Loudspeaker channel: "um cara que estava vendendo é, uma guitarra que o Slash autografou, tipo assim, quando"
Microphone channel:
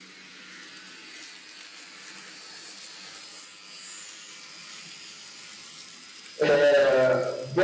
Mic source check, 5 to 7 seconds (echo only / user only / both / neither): user only